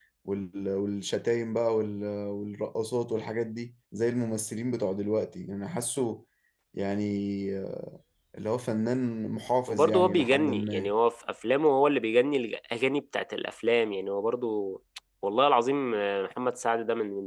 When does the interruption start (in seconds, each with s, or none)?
9.7 s